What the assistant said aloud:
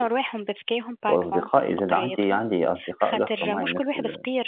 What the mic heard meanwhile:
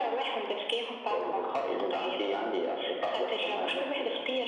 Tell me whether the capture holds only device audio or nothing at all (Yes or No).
Yes